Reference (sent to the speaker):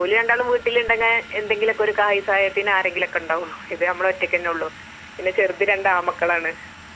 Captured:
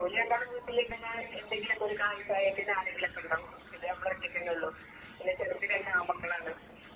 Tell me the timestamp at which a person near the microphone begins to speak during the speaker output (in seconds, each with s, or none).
none